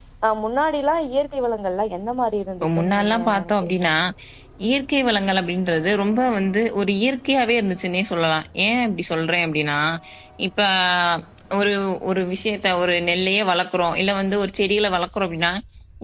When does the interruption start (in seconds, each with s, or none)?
2.6 s